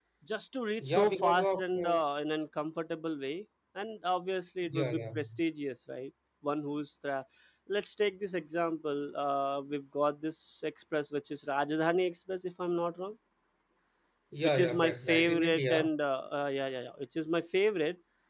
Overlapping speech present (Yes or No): Yes